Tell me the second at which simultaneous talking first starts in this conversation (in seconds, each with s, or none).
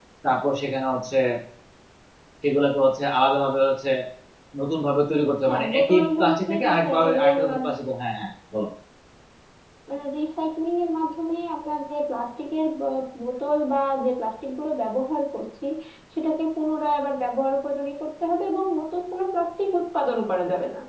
5.5 s